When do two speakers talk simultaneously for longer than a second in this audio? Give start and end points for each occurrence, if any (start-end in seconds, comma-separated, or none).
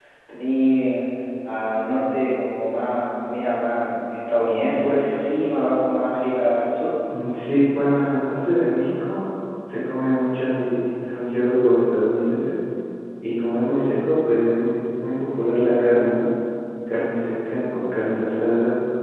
none